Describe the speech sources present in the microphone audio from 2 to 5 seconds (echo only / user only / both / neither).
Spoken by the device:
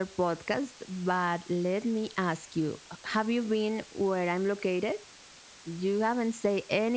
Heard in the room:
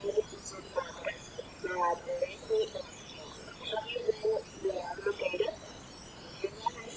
echo only